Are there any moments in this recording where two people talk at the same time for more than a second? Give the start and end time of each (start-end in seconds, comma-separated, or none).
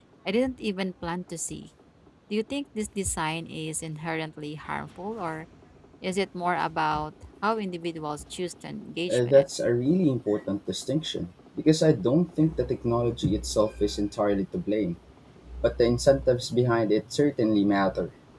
none